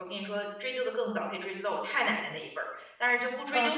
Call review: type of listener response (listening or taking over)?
listening